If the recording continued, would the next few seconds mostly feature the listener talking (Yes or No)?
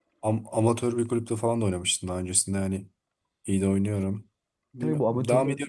Yes